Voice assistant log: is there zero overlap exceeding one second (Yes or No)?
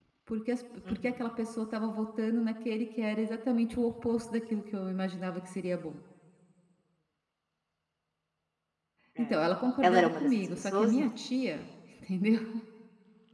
No